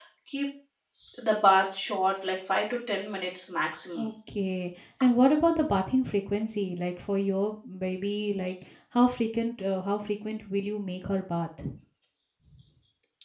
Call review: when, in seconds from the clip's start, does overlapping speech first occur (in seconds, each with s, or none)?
none